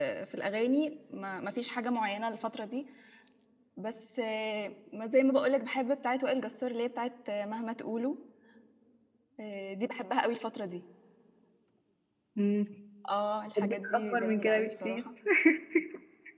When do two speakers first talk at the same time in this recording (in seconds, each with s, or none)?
13.6 s